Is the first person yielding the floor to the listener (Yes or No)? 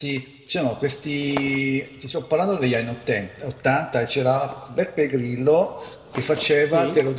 No